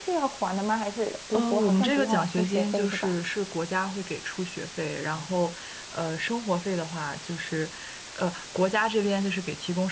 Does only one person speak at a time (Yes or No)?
No